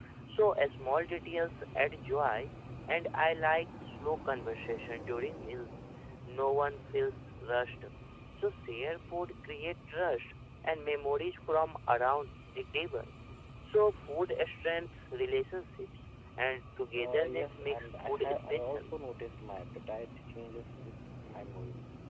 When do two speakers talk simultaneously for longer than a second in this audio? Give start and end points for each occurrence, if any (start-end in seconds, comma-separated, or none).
16.9-18.8